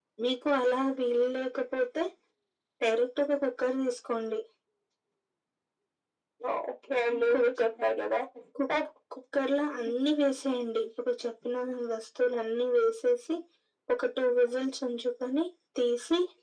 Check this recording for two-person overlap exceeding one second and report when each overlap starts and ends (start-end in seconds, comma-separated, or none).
none